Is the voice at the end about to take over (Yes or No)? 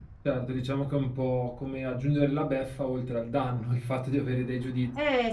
Yes